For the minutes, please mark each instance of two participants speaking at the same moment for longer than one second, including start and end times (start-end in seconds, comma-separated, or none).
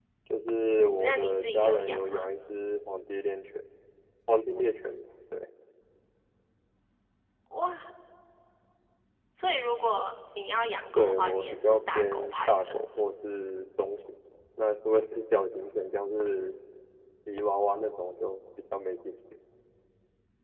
1.0-2.3, 10.9-12.8